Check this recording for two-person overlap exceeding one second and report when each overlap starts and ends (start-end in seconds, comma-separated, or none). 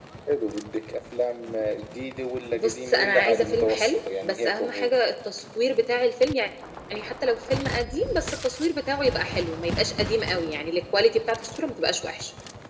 2.5-4.9